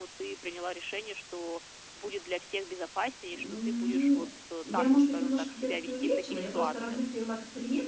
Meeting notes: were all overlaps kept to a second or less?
No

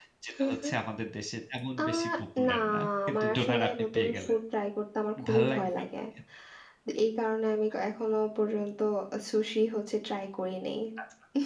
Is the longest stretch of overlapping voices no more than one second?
No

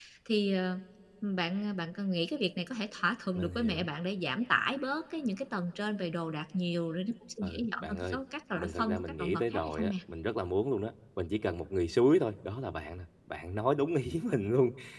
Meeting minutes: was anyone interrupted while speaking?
Yes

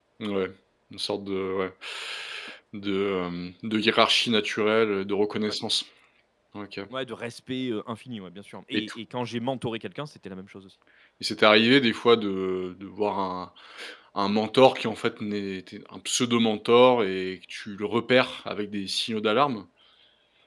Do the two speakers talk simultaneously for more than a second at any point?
No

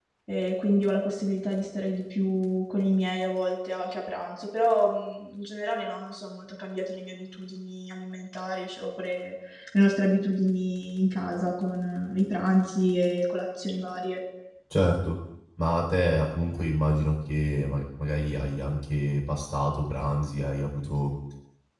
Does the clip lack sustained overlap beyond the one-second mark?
Yes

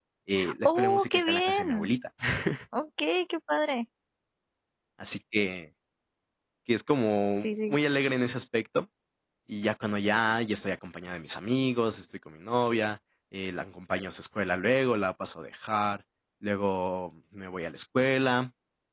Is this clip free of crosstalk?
No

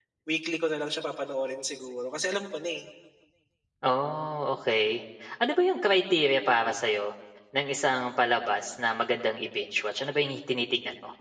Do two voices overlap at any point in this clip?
No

